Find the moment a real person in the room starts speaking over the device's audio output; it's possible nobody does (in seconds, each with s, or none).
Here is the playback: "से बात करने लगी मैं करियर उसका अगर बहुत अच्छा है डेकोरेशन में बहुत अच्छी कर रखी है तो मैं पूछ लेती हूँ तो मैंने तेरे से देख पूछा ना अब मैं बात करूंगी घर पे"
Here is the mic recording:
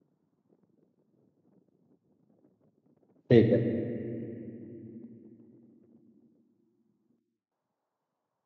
3.3 s